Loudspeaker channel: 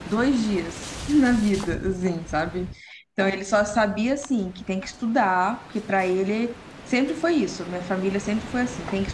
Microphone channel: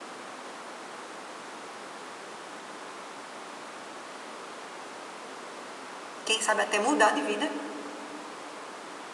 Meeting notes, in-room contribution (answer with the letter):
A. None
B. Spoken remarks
B